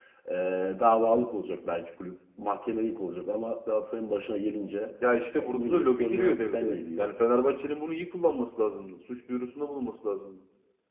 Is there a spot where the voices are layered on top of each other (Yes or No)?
Yes